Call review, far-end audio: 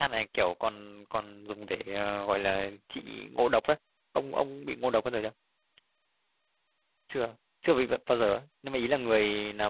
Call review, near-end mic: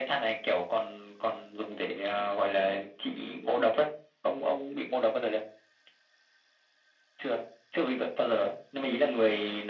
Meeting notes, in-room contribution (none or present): none